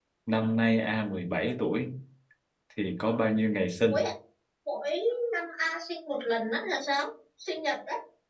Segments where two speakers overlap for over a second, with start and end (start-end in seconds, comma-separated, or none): none